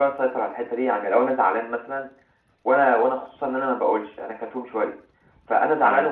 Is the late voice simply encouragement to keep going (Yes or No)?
Yes